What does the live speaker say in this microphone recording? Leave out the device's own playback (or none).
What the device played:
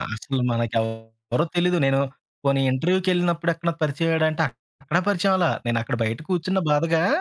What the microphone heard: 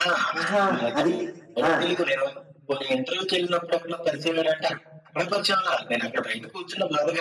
ఆహా! అది. ఆ!